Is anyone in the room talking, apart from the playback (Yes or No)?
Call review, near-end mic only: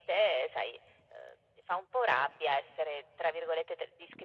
No